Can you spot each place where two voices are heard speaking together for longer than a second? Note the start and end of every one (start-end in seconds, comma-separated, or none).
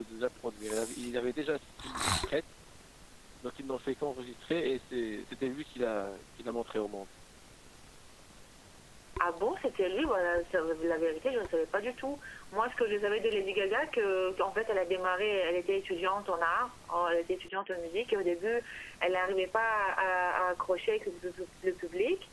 none